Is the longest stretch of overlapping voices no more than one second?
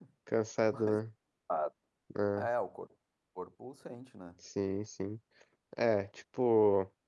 Yes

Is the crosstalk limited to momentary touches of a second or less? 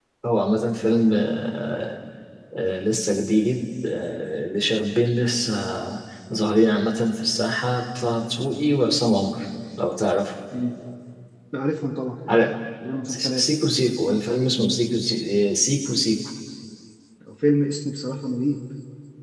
Yes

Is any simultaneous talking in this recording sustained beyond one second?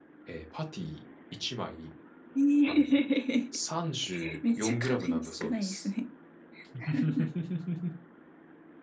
Yes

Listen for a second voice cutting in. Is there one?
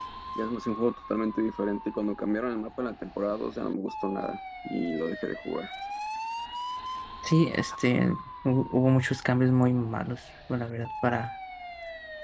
No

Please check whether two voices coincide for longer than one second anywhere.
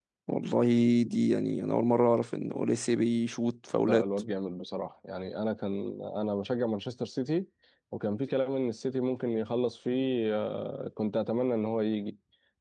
No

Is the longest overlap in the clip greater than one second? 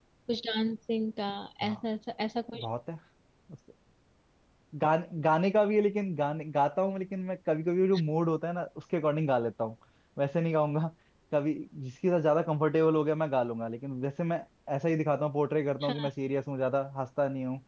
No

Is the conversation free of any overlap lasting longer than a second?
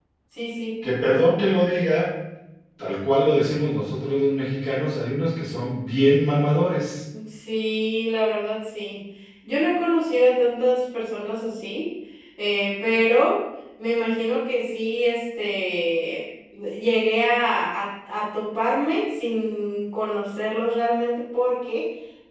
Yes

